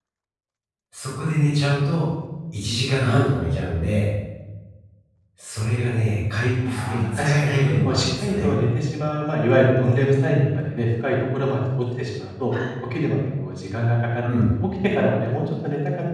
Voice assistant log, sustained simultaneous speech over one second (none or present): present